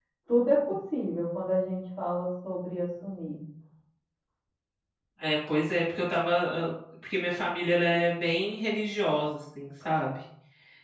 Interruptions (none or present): none